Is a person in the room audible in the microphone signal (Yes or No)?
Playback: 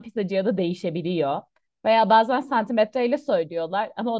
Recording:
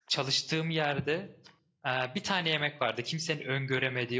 Yes